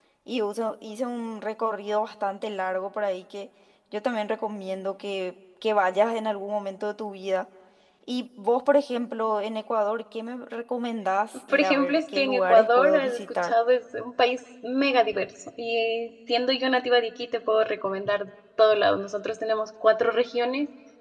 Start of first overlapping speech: 11.5 s

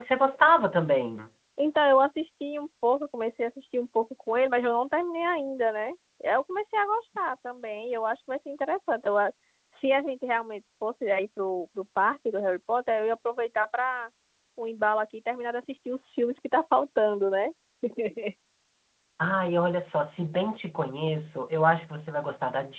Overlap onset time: none

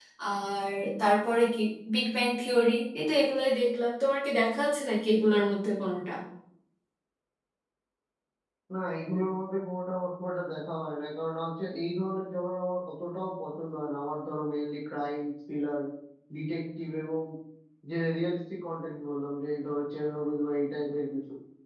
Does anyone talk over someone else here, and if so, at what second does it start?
none

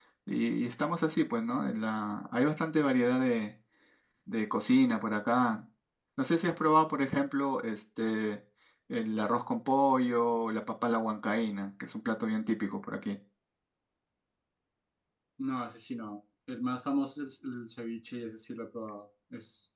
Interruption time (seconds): none

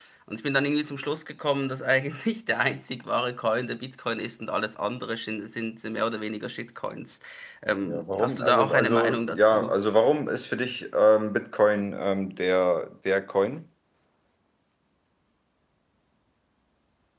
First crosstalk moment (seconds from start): 7.8 s

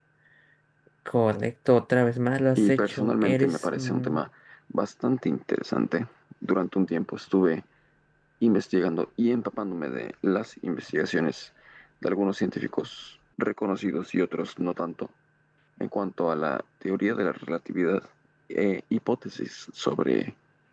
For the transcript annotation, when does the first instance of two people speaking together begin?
2.5 s

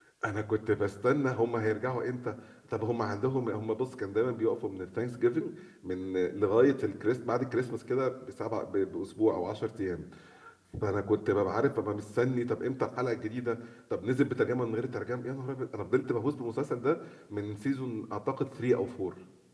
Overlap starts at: none

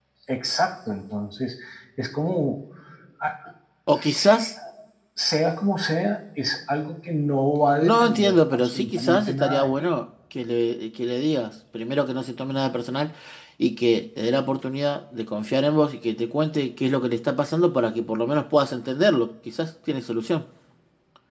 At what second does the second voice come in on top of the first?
7.8 s

